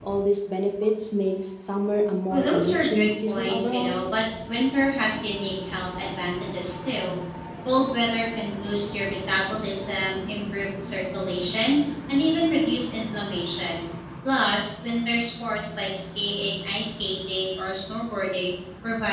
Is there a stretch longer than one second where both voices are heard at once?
Yes, from 2.3 s

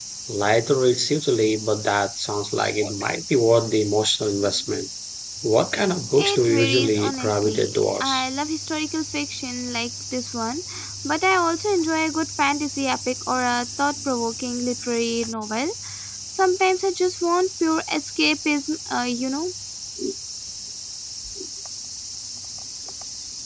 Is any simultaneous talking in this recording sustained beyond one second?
Yes, from 6.2 s

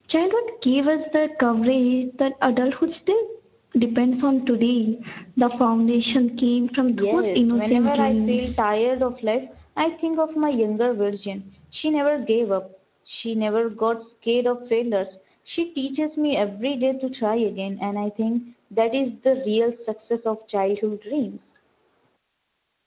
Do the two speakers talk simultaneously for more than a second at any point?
Yes, from 6.9 s

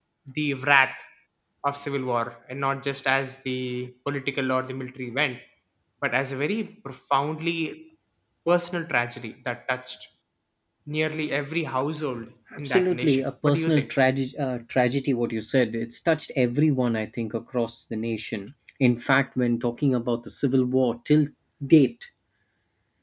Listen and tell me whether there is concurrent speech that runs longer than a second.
Yes, from 12.5 s

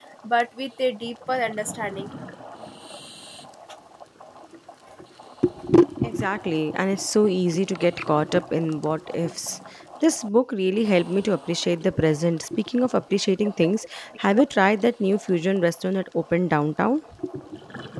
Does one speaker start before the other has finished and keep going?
No

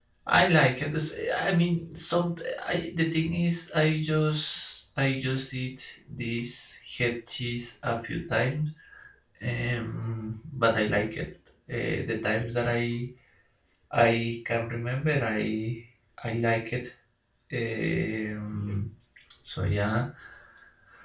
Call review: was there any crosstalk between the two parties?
No

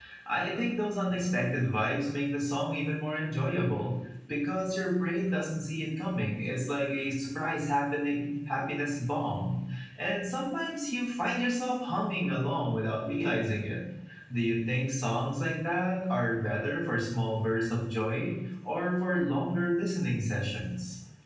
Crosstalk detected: No

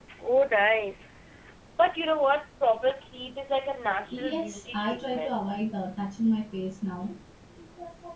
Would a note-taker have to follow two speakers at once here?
Yes, from 4.1 s

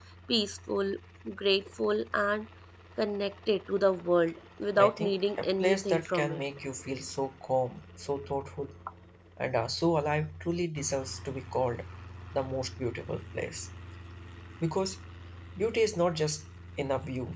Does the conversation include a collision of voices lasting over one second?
Yes, from 4.8 s

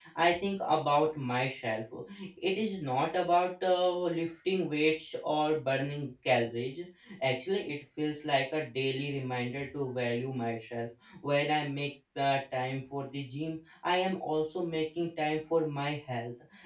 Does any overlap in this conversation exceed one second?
No

